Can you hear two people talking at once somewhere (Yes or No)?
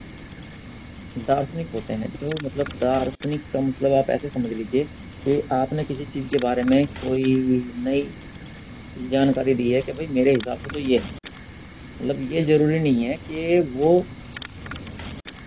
No